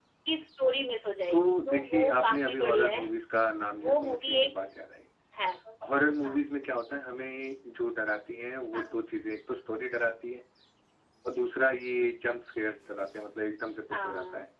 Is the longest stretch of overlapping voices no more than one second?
No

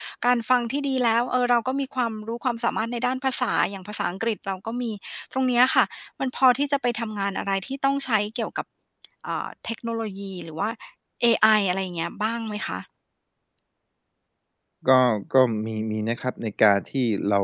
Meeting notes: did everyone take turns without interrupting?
Yes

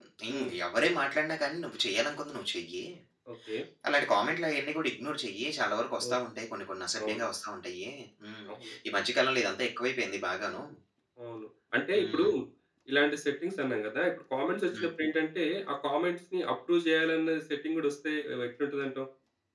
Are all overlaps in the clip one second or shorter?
Yes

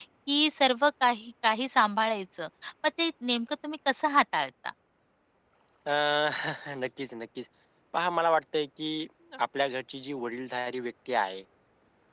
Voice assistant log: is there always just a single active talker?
Yes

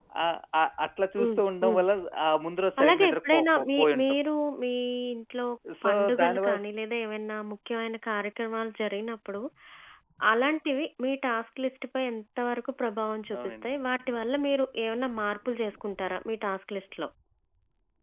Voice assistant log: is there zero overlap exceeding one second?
No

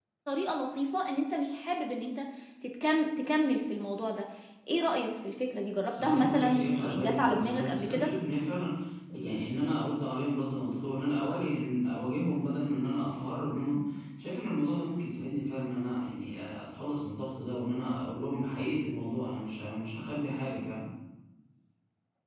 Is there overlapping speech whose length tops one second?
Yes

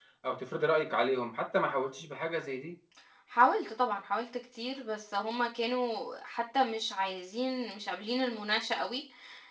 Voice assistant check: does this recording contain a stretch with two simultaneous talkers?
No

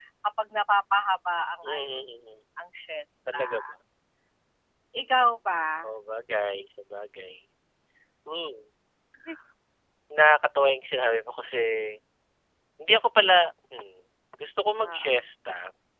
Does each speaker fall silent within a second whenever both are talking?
Yes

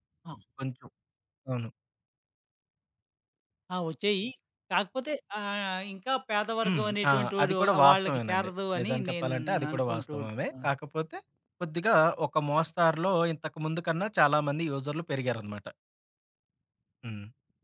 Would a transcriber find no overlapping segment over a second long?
No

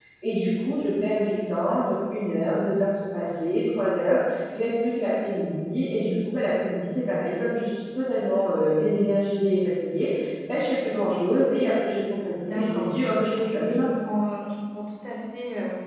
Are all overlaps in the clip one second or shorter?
No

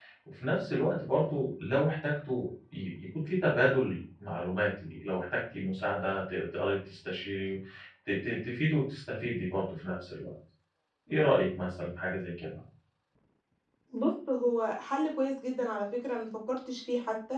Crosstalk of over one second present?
No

